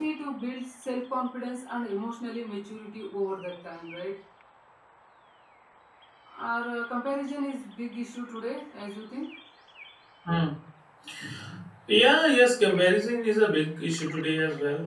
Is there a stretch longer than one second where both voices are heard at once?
No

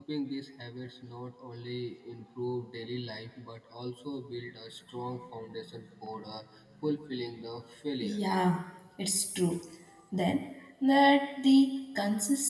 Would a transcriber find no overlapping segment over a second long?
Yes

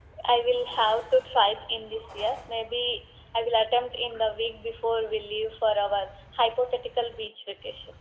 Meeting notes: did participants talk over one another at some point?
No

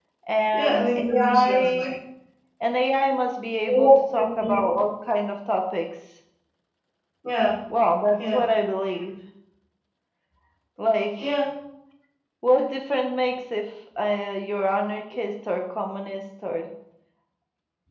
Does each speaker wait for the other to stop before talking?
No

